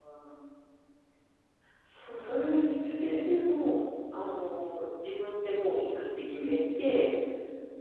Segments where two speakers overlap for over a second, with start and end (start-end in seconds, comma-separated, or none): 2.0-3.3